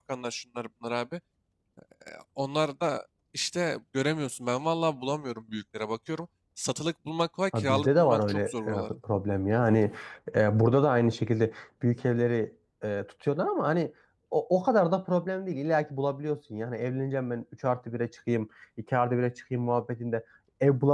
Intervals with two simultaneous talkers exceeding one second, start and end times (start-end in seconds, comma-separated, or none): 7.5-8.9